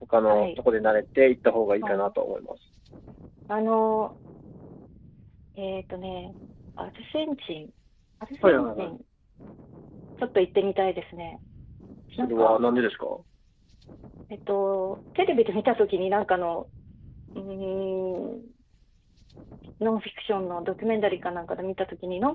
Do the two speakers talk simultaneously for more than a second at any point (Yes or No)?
No